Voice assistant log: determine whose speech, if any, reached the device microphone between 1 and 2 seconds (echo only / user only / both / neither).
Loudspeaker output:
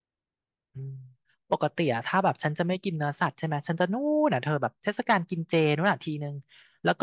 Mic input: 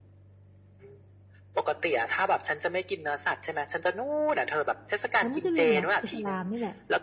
echo only